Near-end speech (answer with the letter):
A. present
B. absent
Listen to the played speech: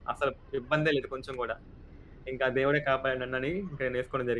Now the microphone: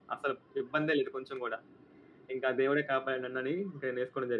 B